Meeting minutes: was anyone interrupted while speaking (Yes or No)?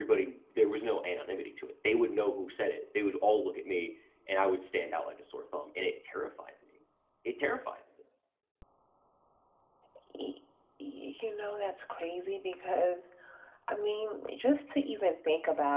No